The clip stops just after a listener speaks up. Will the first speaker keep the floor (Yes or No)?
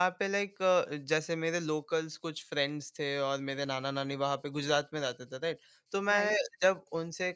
Yes